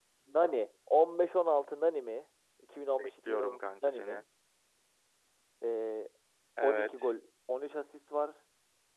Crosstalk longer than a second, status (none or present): present